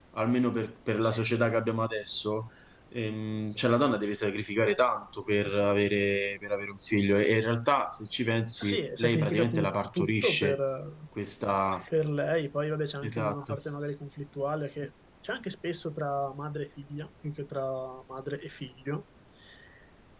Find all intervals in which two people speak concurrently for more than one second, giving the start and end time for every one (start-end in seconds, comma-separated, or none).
8.6-10.6